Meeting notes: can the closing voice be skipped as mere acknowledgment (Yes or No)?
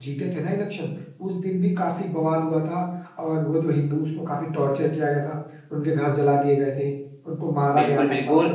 No